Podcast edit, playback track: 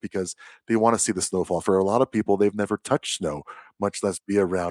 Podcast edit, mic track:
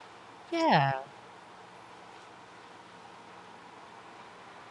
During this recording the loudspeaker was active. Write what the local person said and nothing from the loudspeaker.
Yeah.

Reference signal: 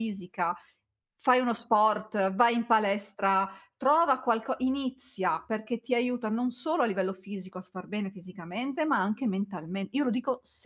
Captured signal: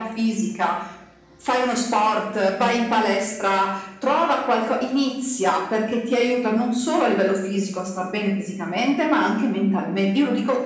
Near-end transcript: none

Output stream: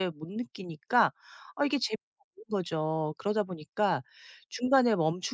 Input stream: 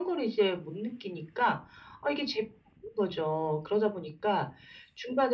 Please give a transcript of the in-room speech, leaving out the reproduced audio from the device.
none

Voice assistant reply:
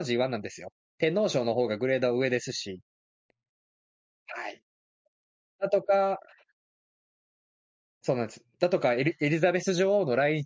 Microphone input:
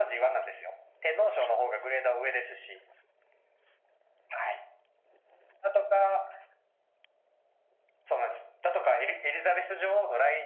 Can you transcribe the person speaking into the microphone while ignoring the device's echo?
none

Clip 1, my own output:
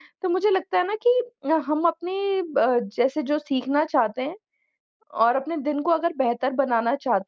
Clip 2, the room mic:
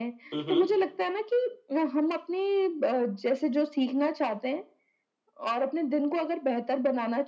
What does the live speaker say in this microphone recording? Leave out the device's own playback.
हुँ, हुँ।

